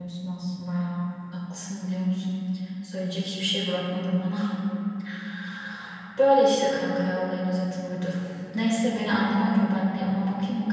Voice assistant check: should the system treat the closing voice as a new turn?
No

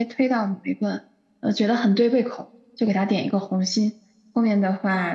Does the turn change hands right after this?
No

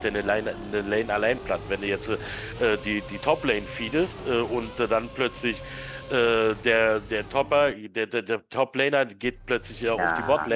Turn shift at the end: No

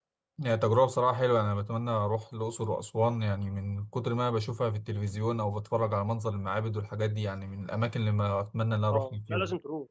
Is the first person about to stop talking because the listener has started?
Yes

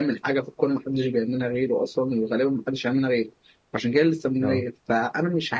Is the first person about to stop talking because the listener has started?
No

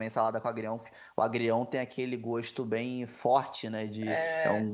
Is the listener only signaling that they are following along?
Yes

